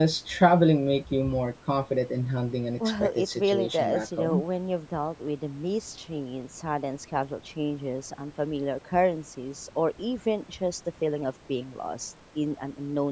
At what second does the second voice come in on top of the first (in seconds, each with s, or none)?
2.8 s